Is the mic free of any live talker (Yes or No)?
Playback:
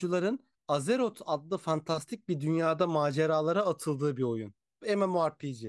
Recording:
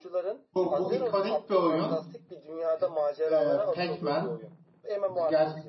No